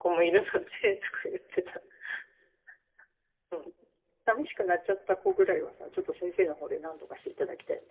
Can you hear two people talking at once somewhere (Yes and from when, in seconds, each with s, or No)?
No